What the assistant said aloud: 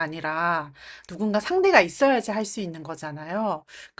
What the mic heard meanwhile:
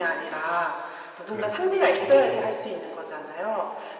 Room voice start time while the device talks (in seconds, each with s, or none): 1.3 s